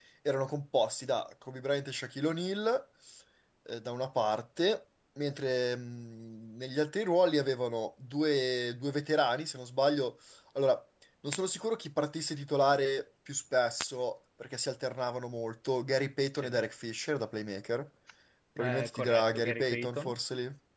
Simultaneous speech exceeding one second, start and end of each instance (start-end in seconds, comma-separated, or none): 18.6-20.1